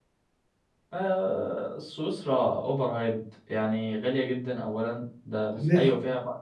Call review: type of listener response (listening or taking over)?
listening